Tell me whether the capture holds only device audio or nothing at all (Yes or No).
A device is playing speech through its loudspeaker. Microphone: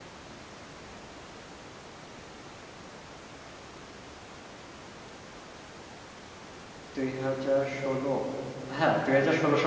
No